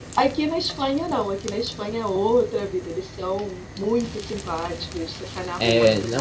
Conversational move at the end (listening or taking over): taking over